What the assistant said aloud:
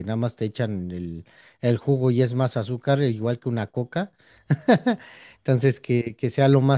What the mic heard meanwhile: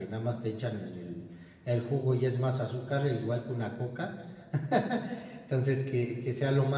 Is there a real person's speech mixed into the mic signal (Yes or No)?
No